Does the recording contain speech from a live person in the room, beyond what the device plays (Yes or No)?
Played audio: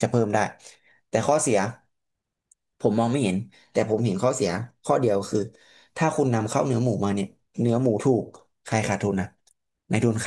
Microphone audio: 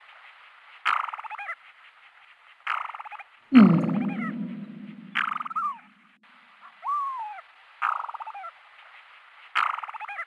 Yes